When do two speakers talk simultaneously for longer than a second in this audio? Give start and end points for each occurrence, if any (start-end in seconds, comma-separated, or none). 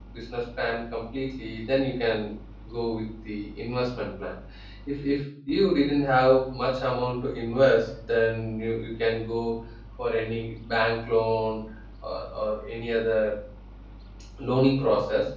none